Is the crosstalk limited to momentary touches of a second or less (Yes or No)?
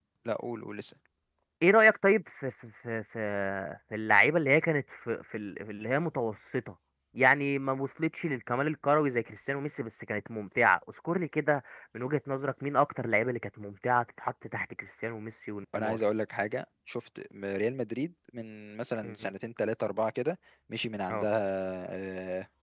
Yes